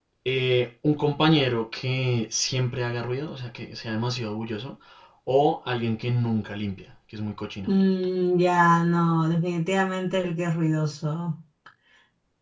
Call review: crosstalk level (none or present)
none